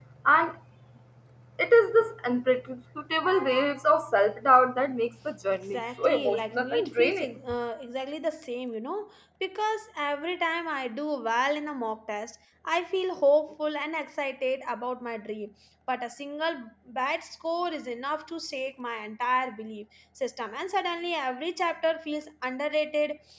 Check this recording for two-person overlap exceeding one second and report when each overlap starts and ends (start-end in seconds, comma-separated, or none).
5.7-7.4